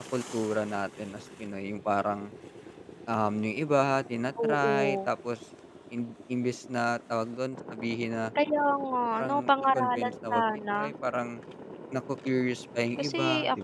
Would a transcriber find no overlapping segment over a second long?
No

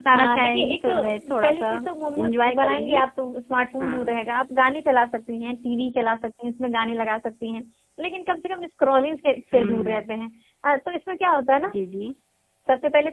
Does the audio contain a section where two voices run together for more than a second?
Yes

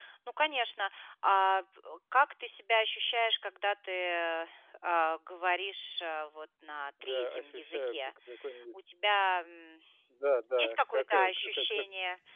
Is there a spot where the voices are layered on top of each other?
Yes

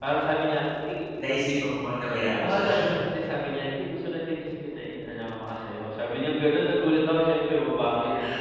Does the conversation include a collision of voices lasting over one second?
No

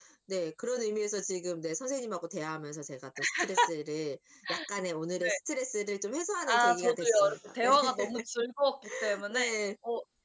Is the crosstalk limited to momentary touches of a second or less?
No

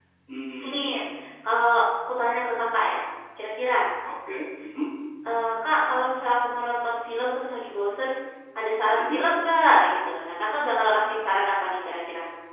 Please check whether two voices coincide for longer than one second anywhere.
No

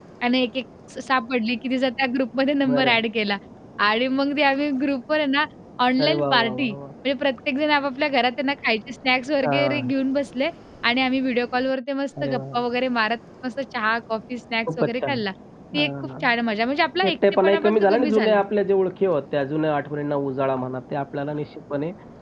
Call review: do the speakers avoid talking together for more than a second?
No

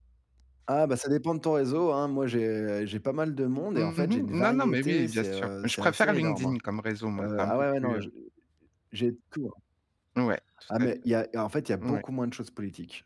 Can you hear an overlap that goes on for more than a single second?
Yes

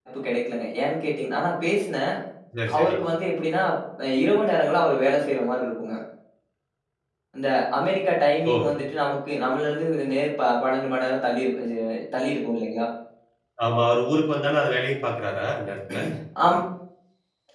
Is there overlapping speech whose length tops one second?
No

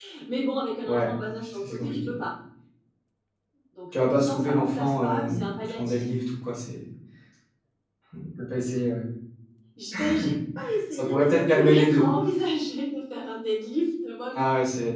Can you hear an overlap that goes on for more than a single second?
Yes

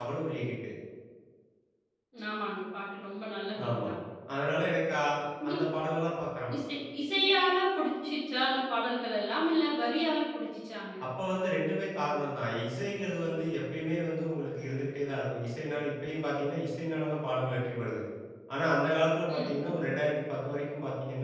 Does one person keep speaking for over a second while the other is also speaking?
No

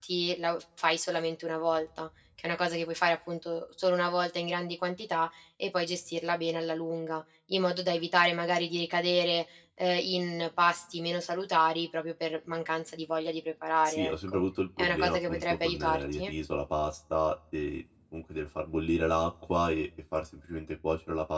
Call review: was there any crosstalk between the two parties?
Yes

